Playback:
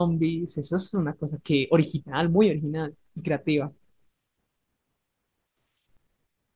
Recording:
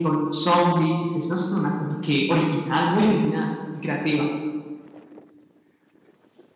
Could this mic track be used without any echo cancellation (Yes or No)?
No